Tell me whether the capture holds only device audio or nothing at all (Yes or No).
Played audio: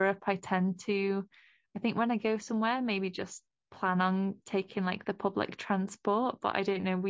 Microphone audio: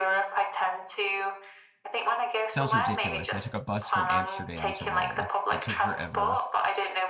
No